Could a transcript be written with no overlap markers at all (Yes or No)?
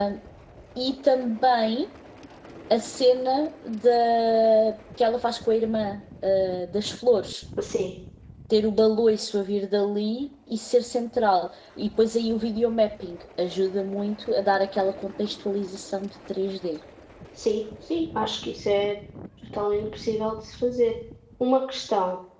Yes